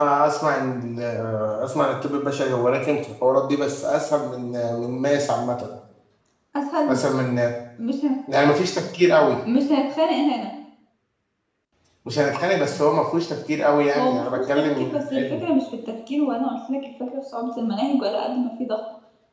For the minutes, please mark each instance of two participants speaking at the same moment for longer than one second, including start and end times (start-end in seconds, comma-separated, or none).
13.9-15.4